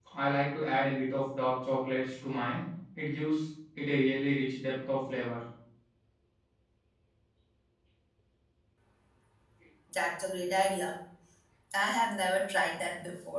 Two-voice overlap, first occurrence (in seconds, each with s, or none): none